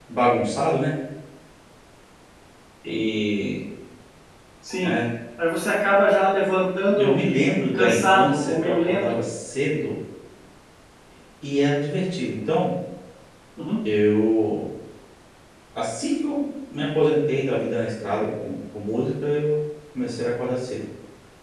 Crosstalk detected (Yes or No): Yes